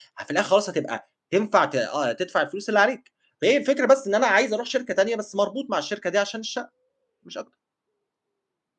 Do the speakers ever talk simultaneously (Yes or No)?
No